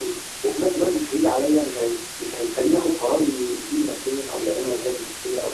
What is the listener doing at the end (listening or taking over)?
taking over